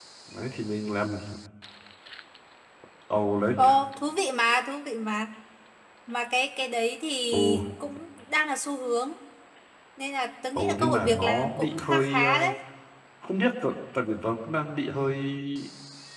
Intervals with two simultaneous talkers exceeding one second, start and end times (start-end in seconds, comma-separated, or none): 10.6-12.5